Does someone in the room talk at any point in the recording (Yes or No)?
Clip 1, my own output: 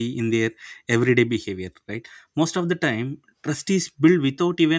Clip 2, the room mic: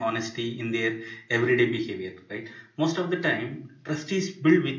No